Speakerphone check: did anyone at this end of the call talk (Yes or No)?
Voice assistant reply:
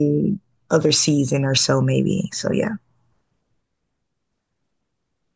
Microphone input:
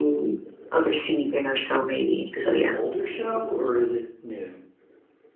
Yes